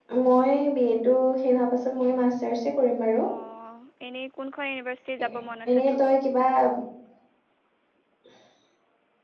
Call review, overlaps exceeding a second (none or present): none